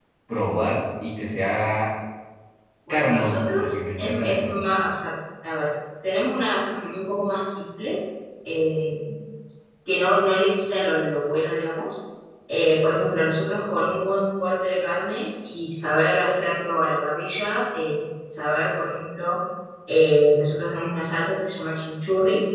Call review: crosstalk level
present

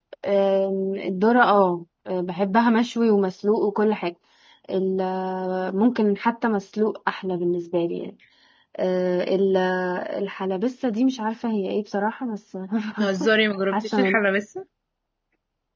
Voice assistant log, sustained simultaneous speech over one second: none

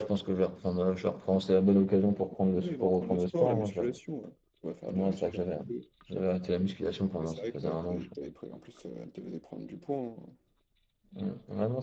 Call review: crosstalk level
present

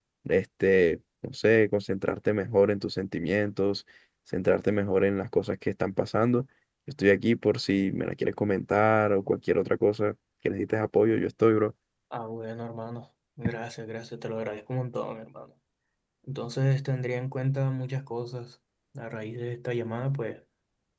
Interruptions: none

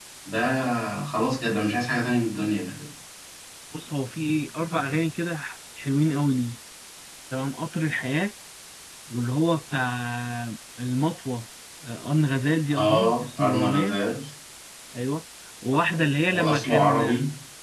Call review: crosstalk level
present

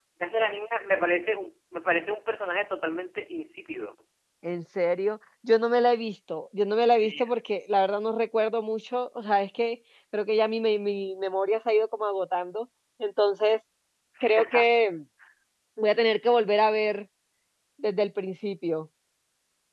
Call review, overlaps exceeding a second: none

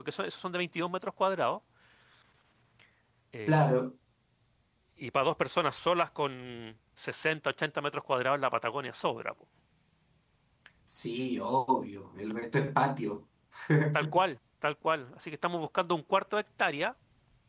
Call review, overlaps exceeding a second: none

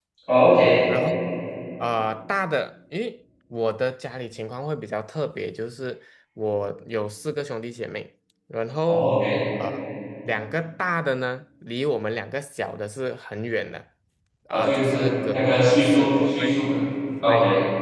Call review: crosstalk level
present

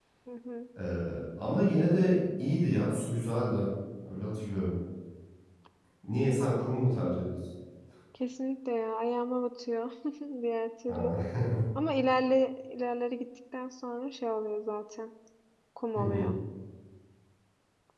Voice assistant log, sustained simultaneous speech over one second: none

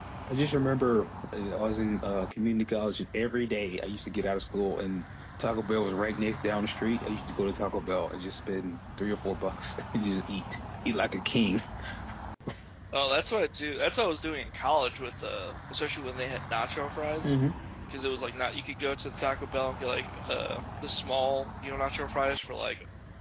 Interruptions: none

